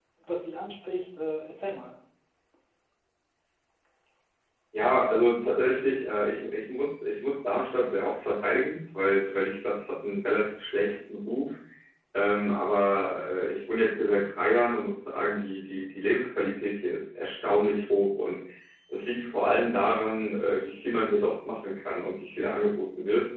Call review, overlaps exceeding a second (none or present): none